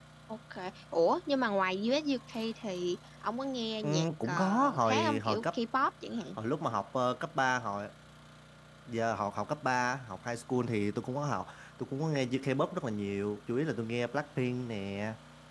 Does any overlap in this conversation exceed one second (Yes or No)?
Yes